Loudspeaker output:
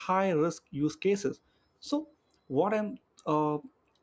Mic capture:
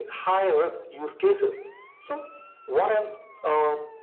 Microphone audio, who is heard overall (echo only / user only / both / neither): echo only